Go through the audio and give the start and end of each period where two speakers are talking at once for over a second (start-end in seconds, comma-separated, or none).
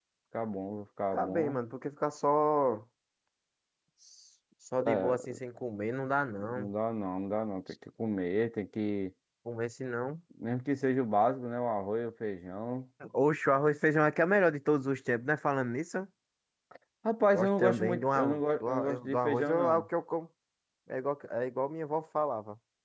17.3-19.9